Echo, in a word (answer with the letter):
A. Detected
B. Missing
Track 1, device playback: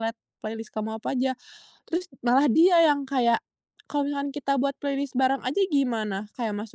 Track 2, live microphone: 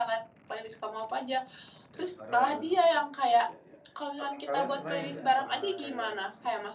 A